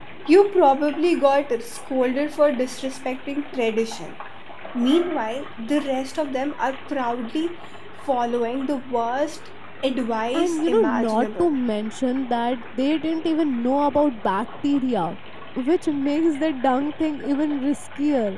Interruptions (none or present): present